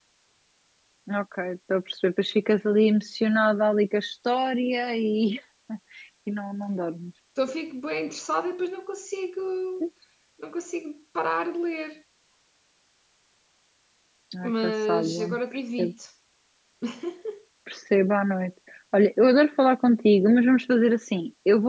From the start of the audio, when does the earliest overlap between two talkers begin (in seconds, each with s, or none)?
14.4 s